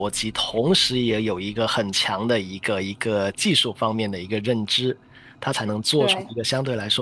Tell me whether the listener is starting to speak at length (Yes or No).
No